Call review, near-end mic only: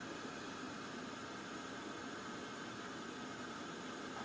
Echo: none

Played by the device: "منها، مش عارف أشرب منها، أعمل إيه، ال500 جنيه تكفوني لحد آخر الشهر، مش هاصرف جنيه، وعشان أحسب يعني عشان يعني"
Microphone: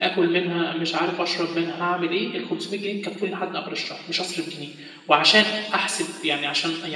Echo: present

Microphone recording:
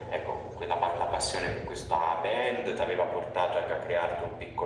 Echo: present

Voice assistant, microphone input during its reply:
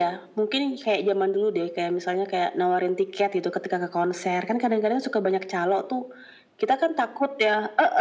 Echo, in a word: present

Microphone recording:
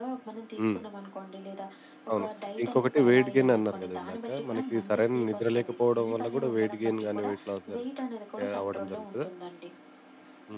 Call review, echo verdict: present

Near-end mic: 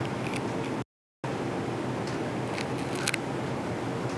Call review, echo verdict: none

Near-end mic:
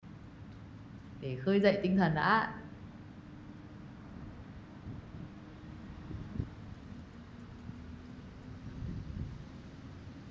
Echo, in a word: none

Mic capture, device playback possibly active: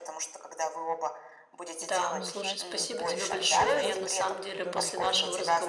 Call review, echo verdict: present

